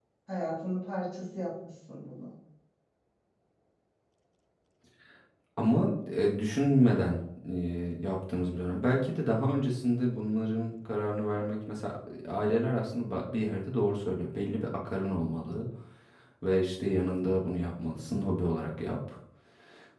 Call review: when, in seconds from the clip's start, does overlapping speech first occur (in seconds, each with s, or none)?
none